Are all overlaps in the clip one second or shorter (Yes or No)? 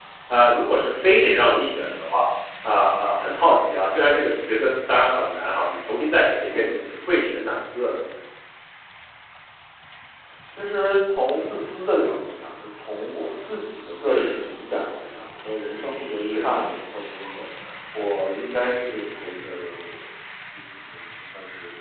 Yes